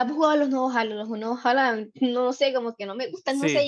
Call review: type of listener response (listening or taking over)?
taking over